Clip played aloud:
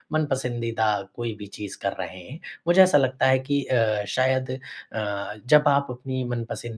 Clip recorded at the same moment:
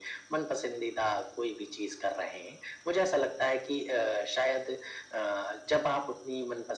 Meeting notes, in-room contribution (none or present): none